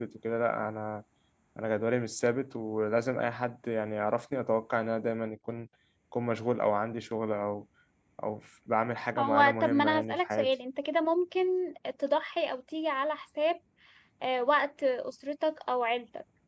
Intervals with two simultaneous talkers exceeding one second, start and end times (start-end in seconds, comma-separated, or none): 9.2-10.5